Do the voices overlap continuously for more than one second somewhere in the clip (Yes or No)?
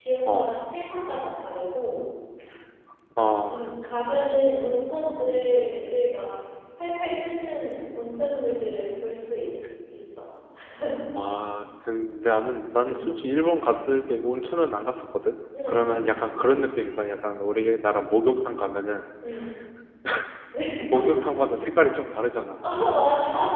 No